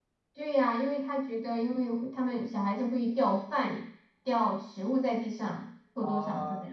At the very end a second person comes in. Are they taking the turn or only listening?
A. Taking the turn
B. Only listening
A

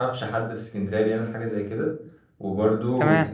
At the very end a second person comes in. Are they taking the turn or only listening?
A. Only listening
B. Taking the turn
A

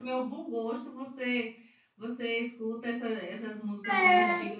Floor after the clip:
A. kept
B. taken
A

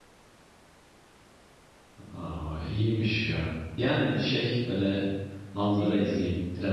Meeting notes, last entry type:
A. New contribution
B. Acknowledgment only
B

